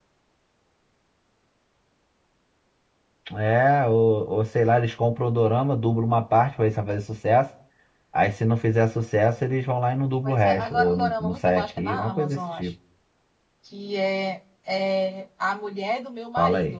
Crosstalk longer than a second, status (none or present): present